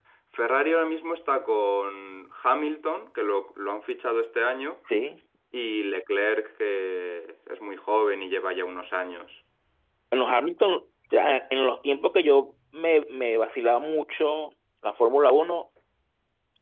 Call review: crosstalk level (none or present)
none